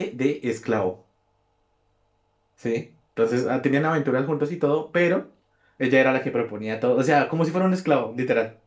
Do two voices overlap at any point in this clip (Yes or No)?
No